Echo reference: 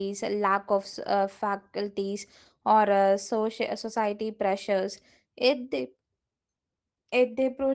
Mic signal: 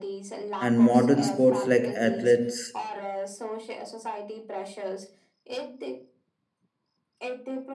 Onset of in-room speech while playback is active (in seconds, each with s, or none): 0.6 s